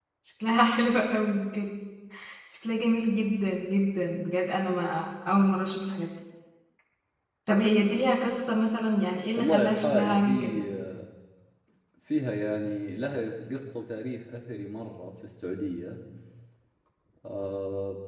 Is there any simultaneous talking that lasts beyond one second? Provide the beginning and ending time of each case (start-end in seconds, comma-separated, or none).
9.4-10.6